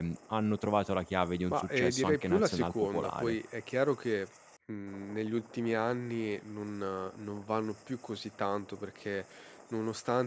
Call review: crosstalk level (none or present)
present